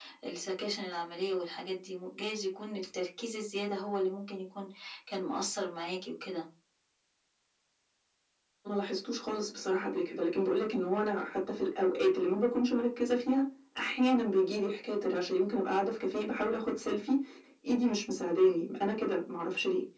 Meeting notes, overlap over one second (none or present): none